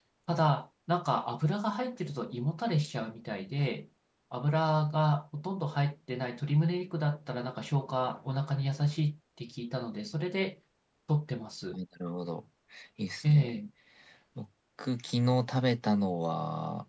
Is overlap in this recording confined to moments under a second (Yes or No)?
Yes